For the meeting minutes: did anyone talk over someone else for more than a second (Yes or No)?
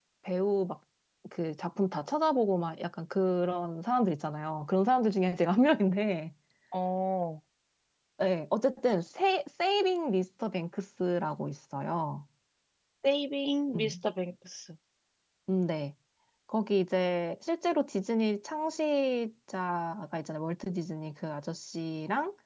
No